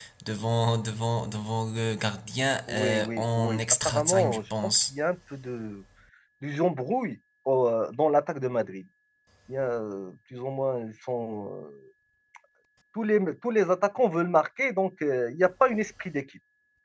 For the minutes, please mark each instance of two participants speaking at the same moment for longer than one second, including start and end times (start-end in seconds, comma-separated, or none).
2.7-4.9